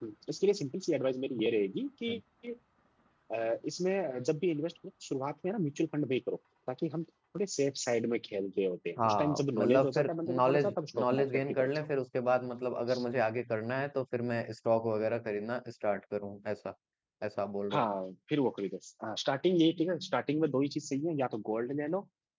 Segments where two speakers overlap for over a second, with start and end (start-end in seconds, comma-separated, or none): 9.0-11.9